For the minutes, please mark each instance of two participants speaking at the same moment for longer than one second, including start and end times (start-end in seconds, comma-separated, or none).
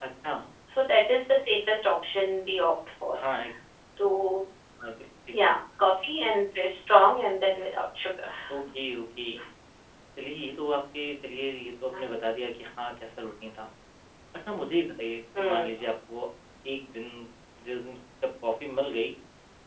none